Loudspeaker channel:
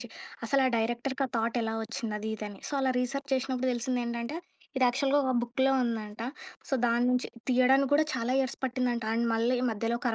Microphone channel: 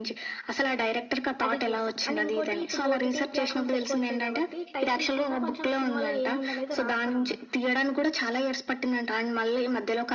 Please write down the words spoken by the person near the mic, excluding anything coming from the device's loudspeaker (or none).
అది చూస్తా. అండ్ ఇంకోటి ఇప్పుడు ఓటీటీ ప్లాట్ఫామ్స్ ఎక్కువొచ్చాయి గాబట్టి టైటిల్ కింద కొంచెం సినిమాలో ఏముందనేది రాస్తారనమాట.